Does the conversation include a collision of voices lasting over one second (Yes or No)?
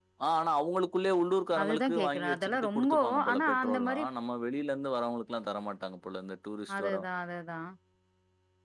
Yes